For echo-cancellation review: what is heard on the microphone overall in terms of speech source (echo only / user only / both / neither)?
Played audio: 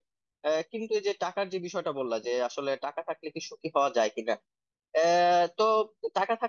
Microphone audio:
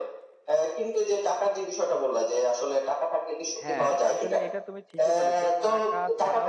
both